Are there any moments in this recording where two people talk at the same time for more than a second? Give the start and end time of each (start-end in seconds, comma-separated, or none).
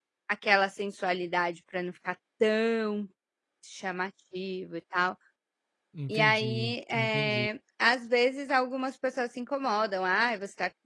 6.1-7.5